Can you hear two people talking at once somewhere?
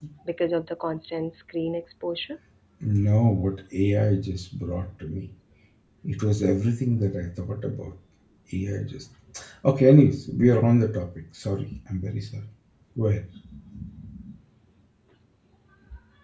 No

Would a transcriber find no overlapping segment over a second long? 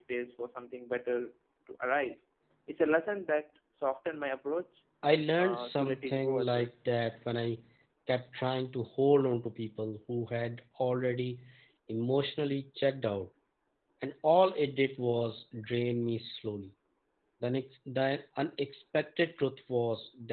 No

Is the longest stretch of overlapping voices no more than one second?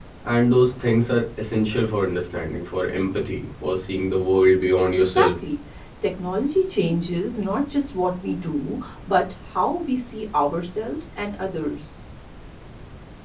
Yes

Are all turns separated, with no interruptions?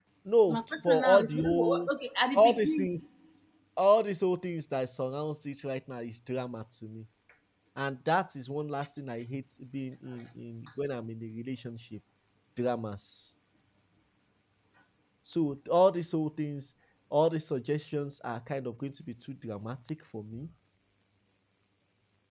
No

